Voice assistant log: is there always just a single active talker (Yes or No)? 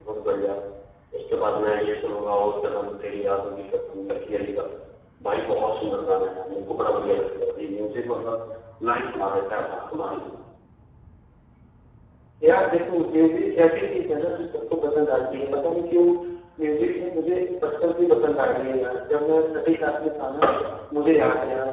Yes